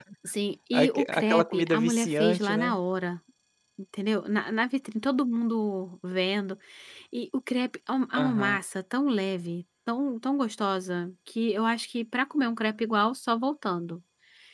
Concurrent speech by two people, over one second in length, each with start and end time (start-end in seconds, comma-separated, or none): 0.7-2.8